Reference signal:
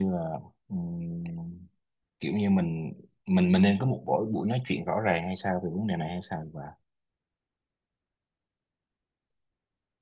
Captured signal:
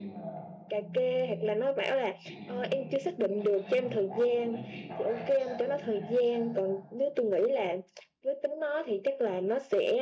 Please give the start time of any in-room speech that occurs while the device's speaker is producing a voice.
0.7 s

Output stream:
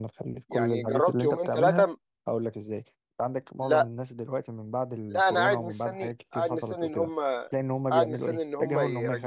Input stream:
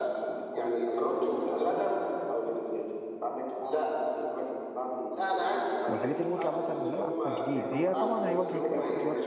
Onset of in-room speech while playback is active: 5.9 s

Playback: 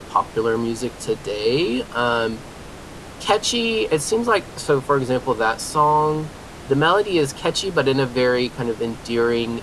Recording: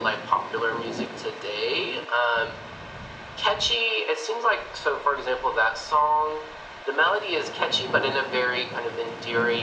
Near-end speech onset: none

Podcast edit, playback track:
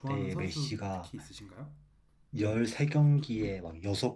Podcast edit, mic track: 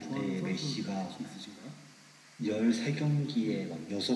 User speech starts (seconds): none

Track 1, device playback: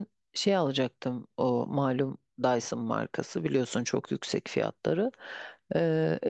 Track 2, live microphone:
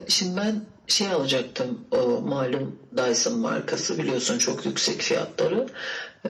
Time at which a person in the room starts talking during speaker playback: none

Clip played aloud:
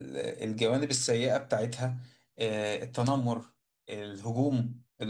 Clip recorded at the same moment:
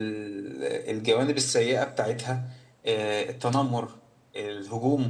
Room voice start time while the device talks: none

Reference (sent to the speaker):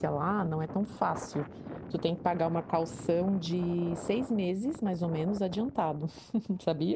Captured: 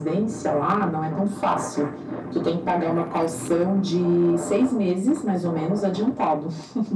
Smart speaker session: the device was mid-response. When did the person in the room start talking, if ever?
none

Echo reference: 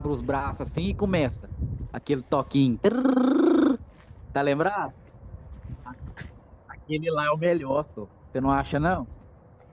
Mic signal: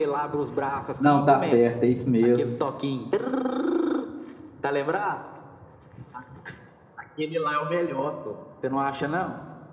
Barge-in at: 1.0 s

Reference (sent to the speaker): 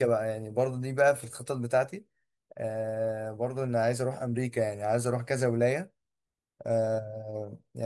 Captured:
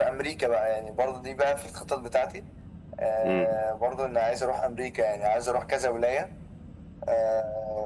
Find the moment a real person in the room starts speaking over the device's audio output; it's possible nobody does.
3.2 s

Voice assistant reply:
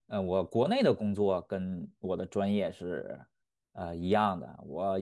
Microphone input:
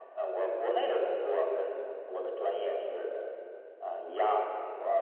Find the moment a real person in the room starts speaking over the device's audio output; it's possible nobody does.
none

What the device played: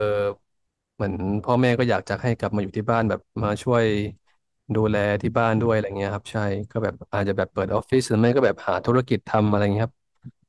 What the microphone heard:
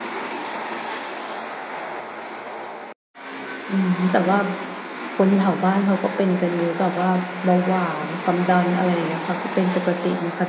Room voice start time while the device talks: 3.7 s

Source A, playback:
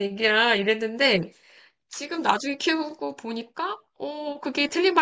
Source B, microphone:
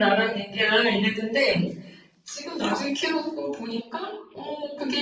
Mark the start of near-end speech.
none

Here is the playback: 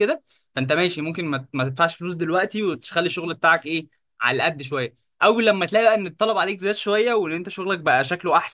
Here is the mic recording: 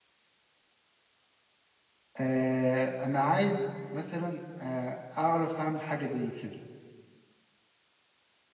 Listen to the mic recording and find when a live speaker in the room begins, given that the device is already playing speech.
2.2 s

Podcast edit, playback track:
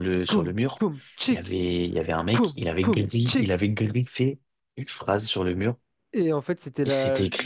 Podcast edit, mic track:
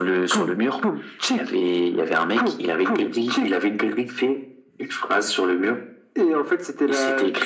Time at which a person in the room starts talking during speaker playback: none

